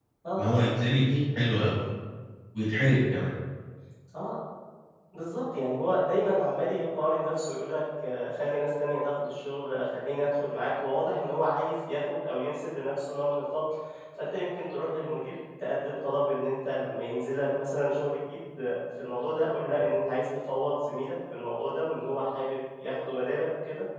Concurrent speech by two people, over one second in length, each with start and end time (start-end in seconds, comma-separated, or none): none